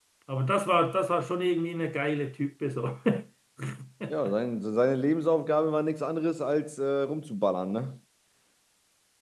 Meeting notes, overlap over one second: none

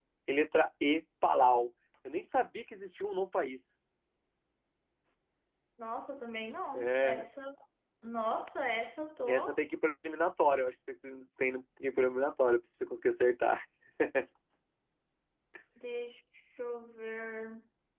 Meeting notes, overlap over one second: none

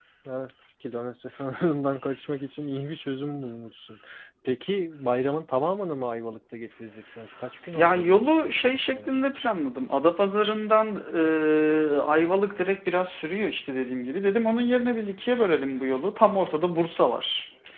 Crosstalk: present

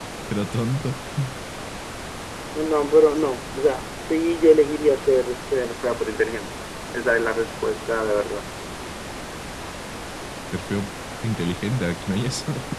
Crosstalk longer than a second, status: none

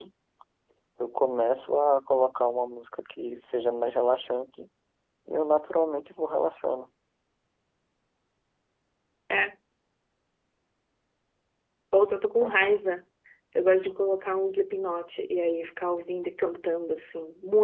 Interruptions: none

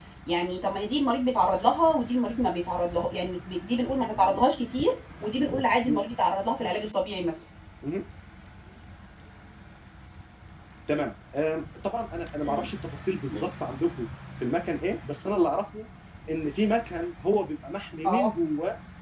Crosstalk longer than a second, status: none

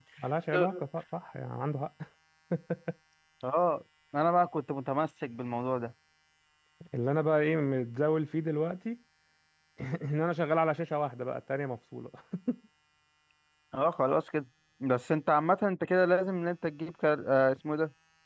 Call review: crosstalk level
none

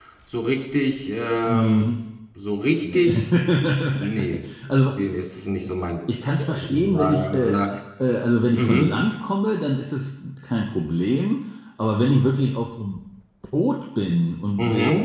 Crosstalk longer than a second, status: present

